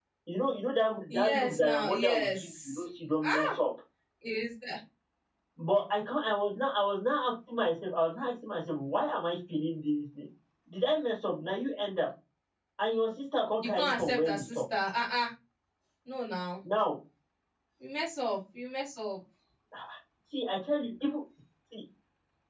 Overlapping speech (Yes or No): Yes